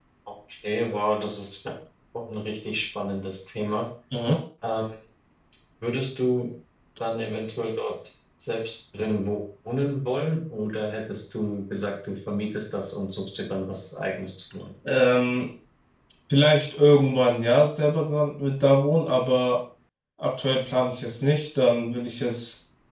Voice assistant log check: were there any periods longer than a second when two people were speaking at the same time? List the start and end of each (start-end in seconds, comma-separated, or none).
none